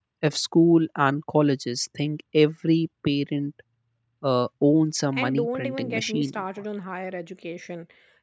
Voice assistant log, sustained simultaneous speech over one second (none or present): present